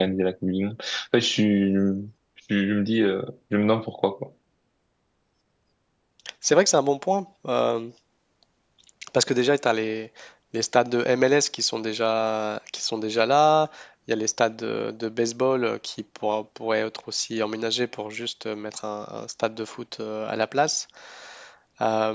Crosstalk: none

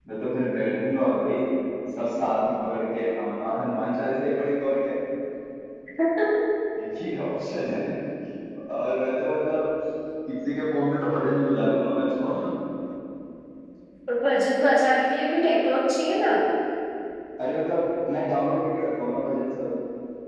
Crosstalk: none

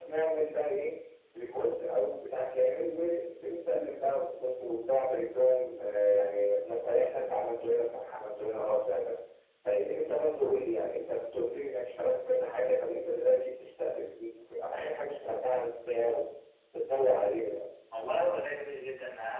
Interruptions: none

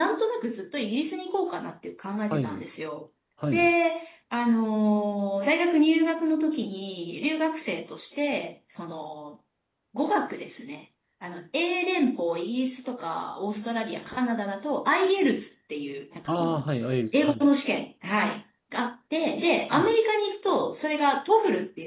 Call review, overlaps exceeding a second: none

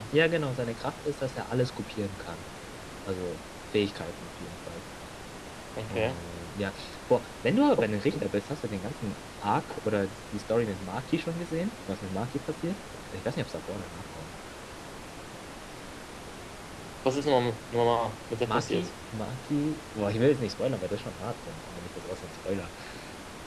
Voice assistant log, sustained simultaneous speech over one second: none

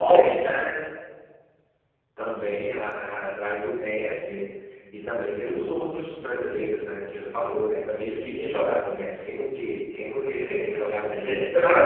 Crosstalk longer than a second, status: present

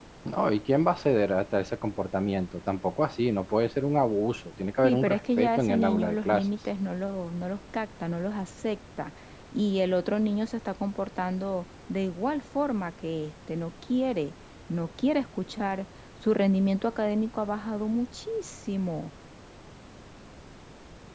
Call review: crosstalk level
present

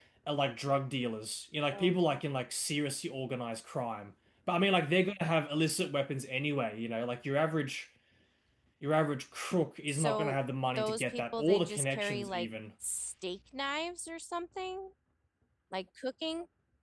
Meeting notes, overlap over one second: present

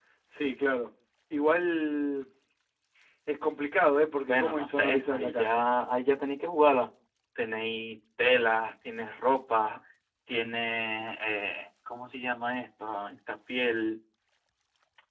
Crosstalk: present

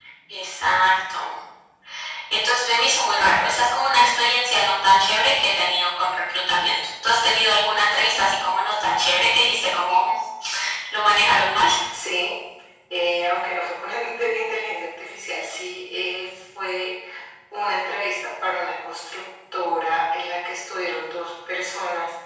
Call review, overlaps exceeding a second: none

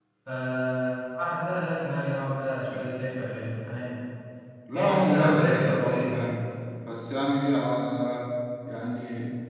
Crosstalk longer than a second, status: present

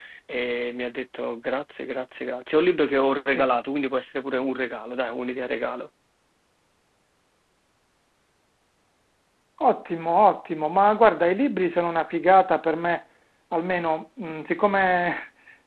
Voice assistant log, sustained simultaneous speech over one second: none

